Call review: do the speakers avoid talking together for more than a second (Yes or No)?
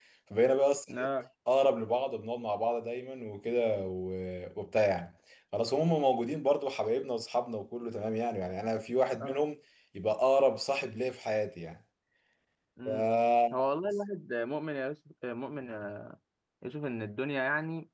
Yes